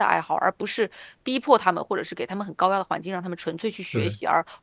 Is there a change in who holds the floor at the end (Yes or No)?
No